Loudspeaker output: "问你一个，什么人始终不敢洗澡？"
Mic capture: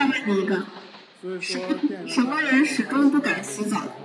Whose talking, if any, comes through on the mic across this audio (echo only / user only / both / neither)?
both